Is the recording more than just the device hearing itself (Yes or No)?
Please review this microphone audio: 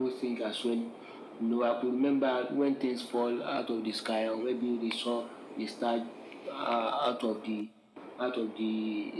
No